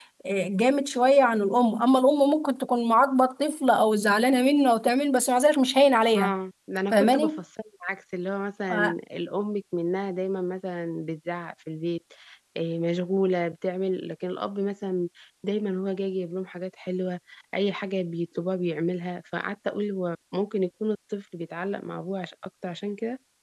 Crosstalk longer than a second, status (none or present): none